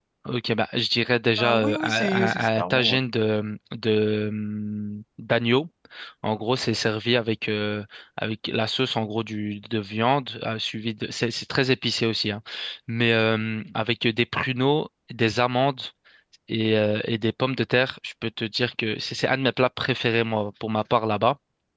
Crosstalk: present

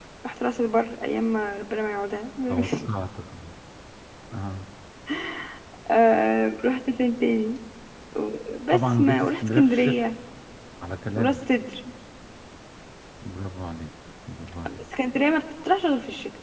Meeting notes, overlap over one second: present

